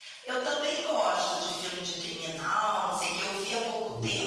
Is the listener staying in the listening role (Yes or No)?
Yes